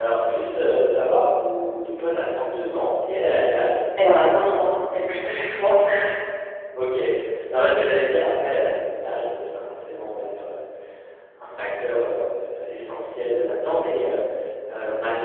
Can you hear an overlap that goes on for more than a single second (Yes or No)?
No